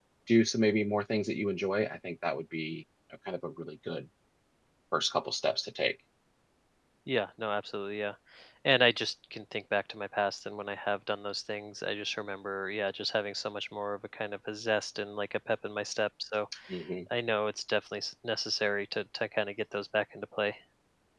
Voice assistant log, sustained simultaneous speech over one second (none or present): none